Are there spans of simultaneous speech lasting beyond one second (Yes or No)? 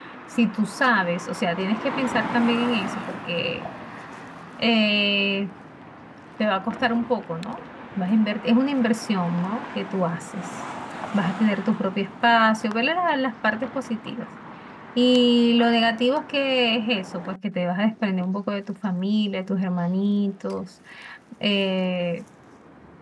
No